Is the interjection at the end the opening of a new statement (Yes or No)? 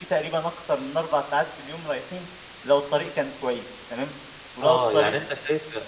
Yes